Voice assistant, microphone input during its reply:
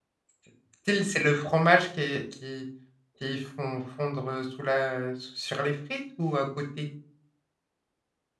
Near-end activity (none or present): present